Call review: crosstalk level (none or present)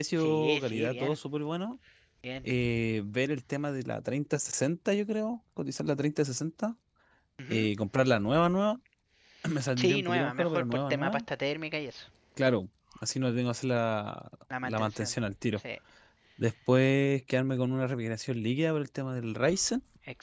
present